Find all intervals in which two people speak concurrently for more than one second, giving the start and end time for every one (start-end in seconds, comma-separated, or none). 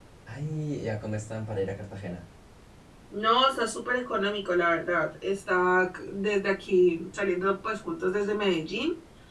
none